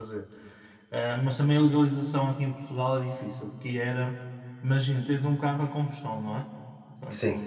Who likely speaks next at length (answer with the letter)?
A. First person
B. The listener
A